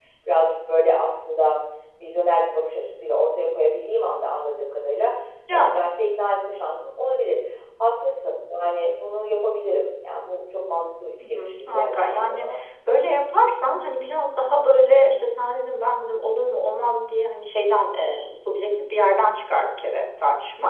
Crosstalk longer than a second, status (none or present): present